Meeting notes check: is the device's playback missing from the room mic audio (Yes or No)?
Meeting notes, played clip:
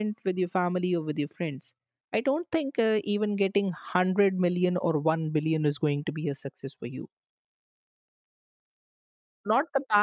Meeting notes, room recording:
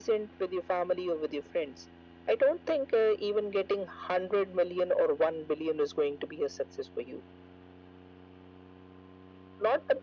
No